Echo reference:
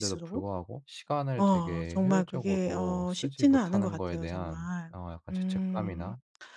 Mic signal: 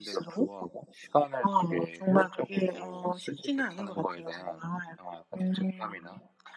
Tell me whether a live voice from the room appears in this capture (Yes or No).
No